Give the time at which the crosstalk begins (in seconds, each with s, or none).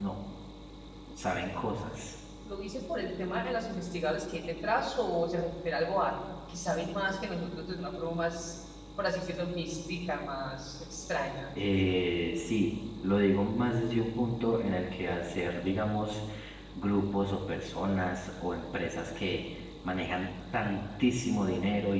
none